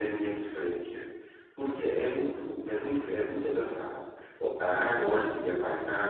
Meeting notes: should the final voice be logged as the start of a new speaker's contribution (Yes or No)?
No